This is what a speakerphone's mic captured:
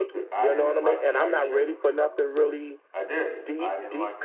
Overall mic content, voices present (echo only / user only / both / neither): both